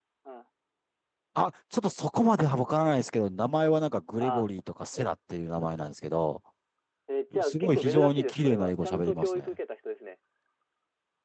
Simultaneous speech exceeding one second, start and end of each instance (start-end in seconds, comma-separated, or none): 7.4-9.5